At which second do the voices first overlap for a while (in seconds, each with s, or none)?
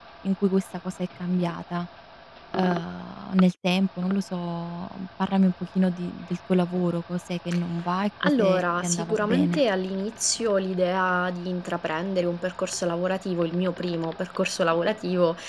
8.2 s